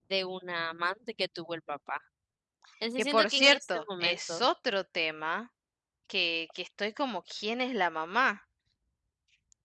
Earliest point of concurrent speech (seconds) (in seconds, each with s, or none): 3.0 s